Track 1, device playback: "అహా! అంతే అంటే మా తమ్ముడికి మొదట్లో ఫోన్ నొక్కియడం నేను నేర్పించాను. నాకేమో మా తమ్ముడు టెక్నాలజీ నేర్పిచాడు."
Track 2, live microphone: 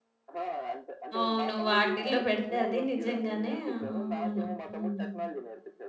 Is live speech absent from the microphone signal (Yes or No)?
No